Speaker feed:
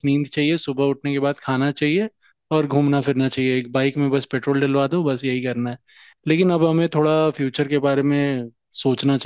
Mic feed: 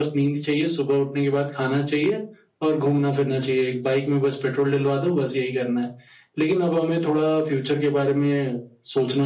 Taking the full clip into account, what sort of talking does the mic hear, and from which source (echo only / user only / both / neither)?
echo only